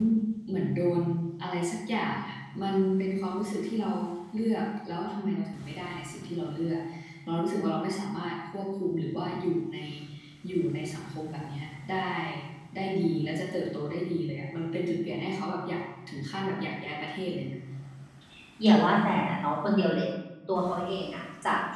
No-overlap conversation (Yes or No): Yes